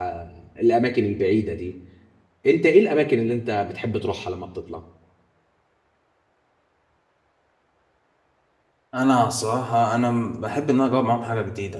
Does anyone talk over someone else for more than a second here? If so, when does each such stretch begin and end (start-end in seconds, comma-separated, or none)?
none